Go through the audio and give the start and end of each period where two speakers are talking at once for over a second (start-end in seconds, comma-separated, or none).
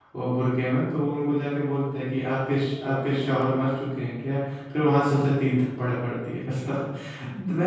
2.3-3.5